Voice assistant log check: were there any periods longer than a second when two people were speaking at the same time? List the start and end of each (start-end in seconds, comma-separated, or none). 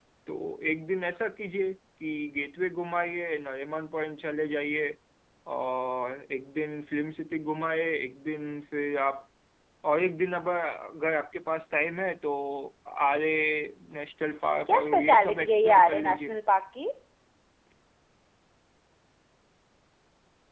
14.7-16.4